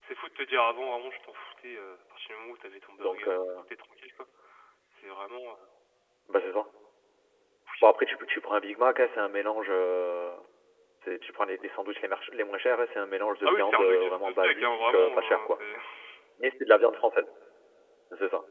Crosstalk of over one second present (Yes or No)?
Yes